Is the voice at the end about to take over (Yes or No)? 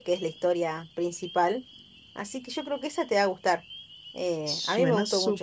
Yes